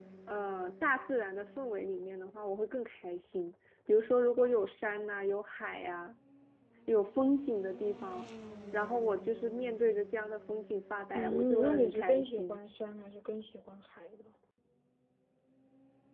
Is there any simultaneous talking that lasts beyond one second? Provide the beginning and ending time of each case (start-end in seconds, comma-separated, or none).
11.1-12.6